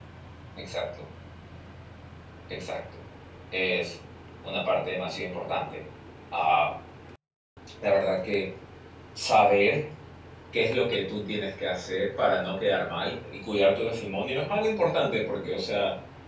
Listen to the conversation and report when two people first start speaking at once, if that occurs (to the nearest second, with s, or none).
none